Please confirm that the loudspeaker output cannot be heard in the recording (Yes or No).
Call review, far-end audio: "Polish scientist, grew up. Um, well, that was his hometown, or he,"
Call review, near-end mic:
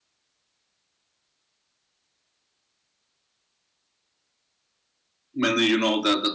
Yes